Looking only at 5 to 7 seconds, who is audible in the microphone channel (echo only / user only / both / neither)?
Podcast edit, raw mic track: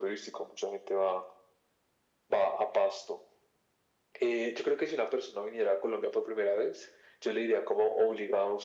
echo only